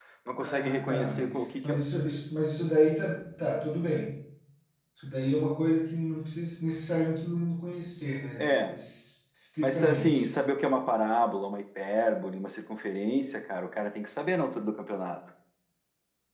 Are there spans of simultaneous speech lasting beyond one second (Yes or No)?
Yes